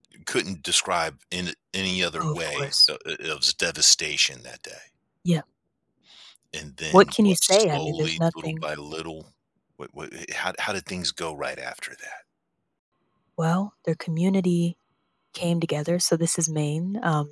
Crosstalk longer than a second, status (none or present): present